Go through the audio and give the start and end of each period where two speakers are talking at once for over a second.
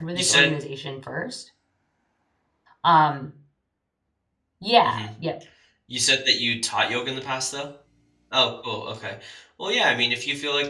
none

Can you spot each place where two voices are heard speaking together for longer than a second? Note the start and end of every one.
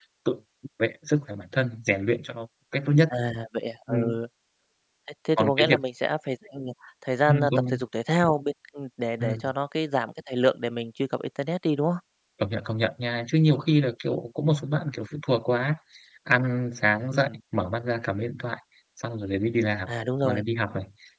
none

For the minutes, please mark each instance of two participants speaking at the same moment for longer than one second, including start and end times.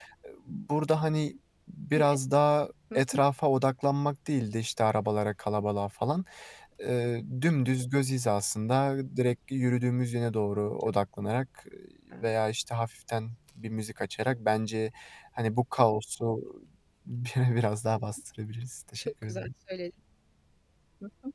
none

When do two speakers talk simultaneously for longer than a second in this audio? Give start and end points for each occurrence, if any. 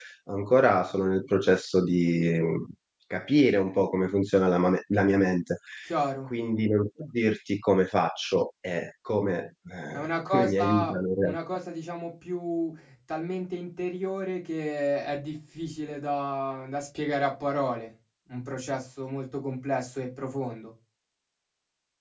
9.9-11.4

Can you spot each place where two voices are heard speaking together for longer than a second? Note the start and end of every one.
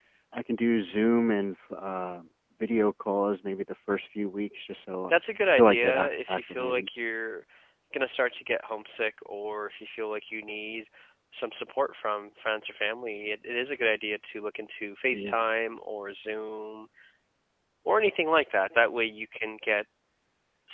5.6-6.9

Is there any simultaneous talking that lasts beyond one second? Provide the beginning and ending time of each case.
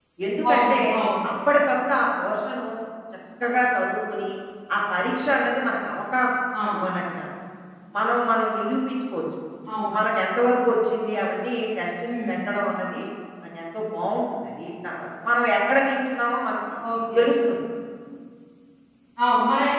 none

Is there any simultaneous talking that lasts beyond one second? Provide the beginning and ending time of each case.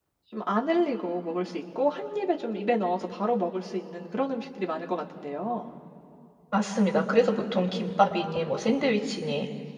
none

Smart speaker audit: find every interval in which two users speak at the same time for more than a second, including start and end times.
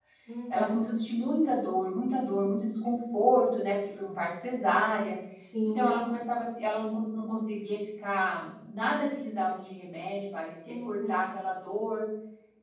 none

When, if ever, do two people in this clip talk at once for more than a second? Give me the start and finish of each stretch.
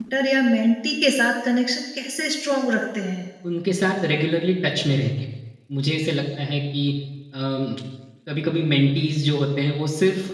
none

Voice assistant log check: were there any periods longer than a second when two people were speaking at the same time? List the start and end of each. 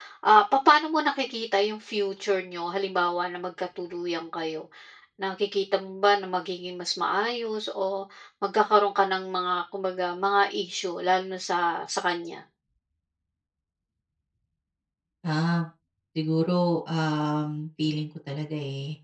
none

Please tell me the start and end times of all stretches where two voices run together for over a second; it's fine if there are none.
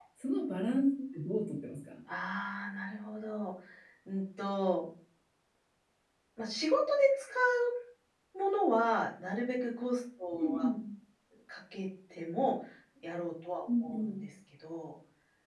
none

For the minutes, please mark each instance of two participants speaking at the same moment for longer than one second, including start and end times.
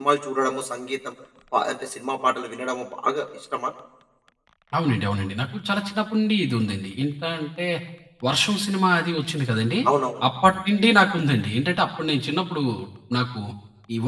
none

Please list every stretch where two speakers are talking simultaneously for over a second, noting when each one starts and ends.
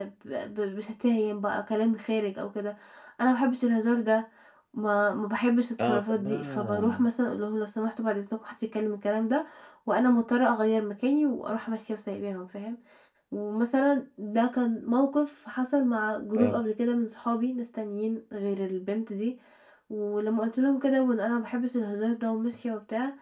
5.8-7.0

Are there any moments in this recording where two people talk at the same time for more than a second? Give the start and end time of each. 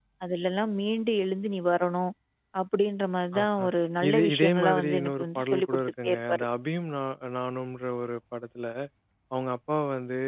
4.1-6.4

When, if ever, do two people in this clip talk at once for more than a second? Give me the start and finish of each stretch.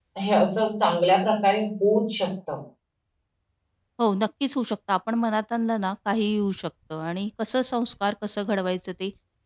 none

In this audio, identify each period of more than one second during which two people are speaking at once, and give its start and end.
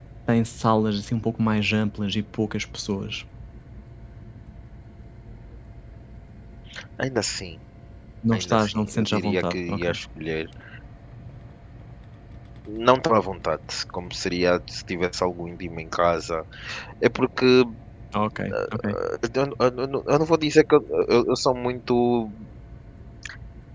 8.3-9.9

